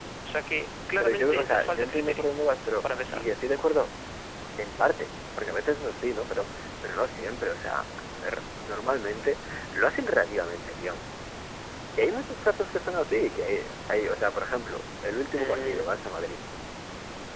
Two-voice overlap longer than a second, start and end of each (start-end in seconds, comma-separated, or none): 1.0-2.3